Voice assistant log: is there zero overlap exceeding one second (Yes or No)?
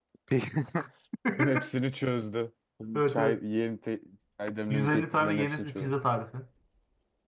No